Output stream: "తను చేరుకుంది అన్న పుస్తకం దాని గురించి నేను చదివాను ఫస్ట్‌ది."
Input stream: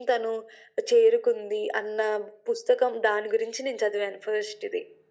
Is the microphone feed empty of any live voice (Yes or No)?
Yes